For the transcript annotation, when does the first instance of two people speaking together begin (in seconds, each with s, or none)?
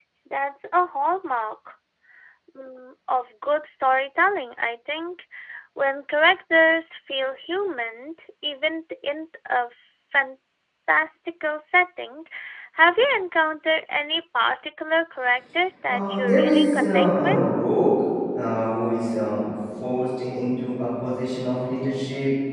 15.9 s